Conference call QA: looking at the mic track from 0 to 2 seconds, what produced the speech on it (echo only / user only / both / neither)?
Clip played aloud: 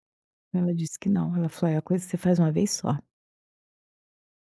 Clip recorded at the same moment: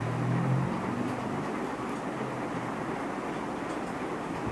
neither